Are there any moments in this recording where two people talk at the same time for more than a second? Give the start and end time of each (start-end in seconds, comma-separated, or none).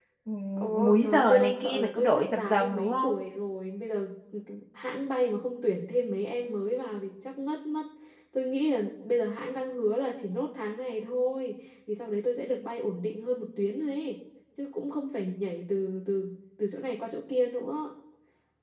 0.8-3.2